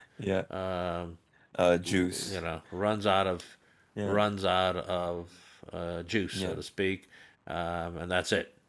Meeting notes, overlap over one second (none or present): none